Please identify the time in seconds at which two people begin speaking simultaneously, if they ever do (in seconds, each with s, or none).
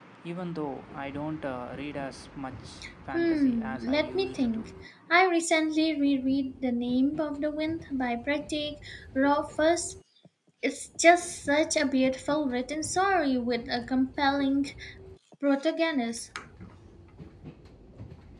3.1 s